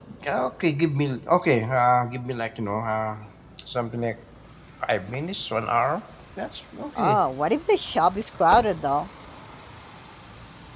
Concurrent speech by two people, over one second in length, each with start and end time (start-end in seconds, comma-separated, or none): none